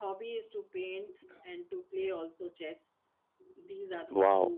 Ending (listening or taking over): taking over